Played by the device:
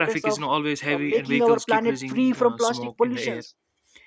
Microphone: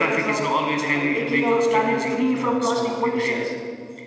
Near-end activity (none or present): none